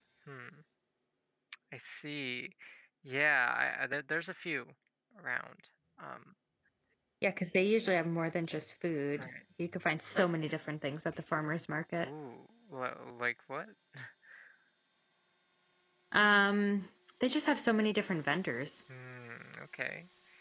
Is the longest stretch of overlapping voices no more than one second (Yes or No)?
Yes